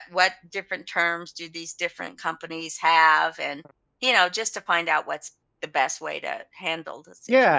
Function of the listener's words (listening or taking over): taking over